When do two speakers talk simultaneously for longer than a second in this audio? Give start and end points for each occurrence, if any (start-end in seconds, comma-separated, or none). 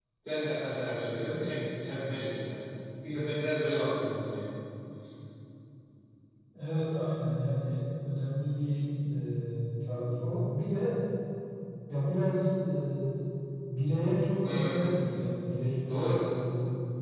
none